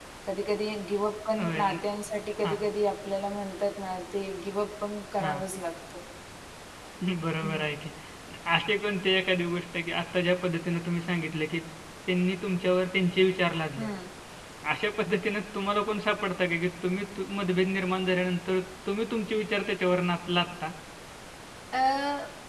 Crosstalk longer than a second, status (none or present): none